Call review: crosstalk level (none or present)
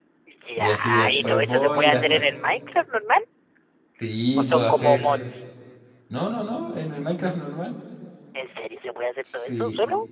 present